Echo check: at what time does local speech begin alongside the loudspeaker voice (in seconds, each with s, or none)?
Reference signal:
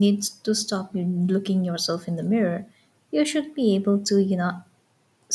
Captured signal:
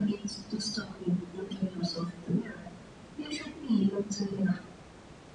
none